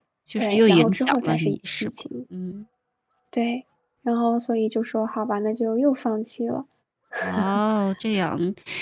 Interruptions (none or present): present